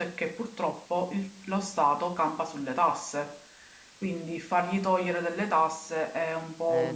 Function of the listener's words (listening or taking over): taking over